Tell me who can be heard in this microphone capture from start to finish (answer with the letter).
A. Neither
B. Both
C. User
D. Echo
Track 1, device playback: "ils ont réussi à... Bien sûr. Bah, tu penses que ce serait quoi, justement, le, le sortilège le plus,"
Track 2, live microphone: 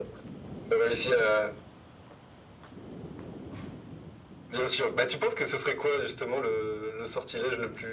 D